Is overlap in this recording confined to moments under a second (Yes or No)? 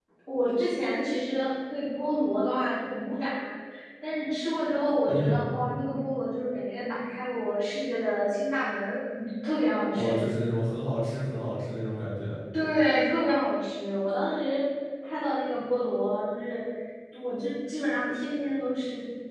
Yes